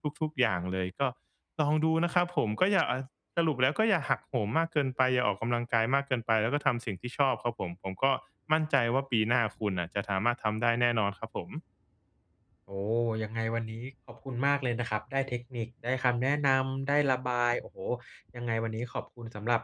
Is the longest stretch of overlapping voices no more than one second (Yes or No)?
Yes